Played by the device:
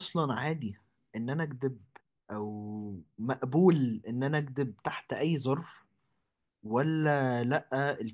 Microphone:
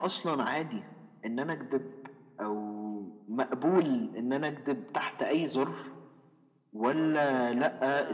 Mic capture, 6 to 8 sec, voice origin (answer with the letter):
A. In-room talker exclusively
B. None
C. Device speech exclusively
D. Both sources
D